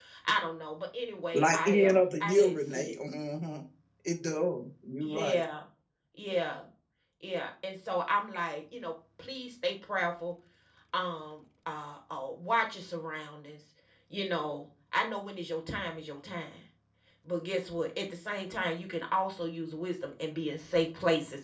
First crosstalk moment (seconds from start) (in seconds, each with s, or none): 1.3 s